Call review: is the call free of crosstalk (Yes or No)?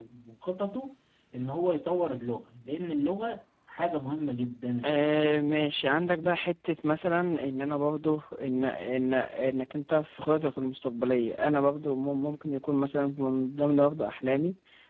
Yes